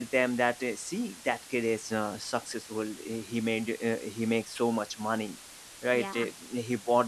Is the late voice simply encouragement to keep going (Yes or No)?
Yes